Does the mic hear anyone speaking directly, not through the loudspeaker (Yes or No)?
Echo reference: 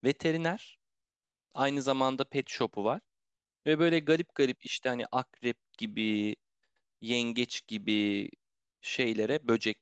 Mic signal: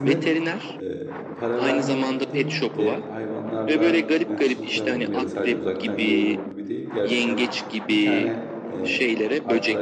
Yes